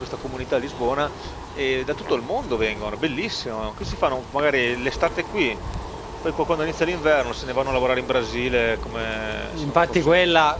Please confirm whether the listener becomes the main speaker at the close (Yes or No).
Yes